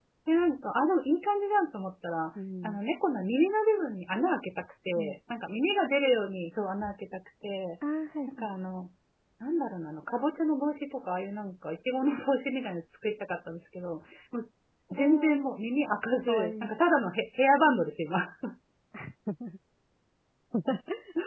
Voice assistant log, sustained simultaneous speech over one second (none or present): none